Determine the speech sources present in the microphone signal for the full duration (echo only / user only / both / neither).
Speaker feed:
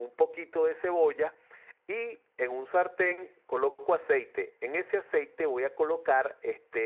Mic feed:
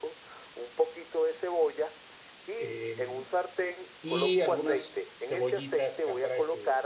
both